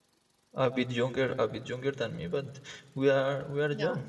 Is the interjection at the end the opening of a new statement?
No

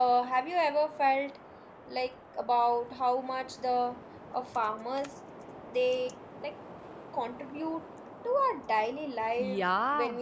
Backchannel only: No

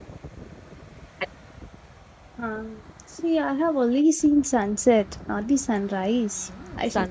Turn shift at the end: Yes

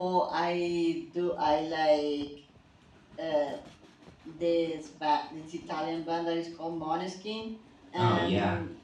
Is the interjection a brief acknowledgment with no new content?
Yes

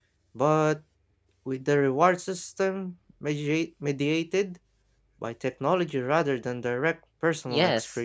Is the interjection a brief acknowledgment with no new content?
No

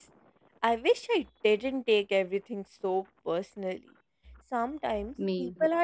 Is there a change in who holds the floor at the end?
No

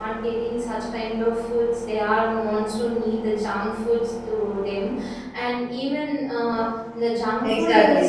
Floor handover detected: Yes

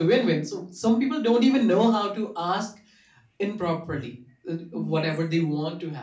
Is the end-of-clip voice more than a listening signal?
No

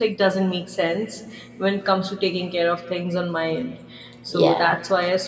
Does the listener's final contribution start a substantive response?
No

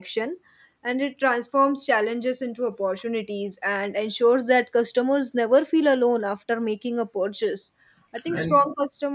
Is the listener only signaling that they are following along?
Yes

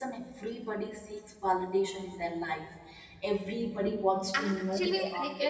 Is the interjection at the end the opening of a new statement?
Yes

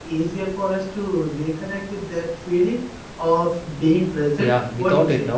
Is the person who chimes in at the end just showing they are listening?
No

